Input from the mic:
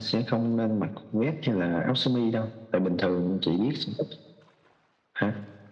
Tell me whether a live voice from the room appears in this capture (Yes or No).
No